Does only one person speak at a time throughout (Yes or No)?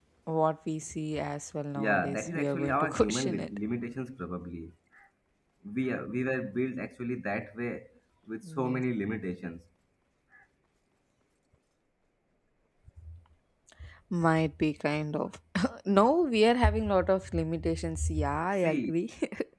No